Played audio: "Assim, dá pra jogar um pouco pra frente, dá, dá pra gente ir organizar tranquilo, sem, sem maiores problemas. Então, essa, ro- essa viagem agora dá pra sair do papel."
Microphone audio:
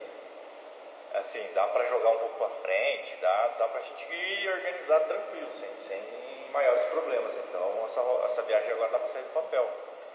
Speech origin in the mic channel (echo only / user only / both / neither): echo only